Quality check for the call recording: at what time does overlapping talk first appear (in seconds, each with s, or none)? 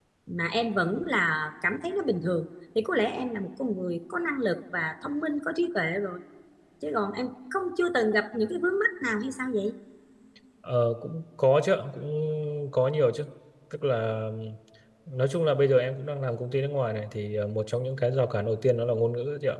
none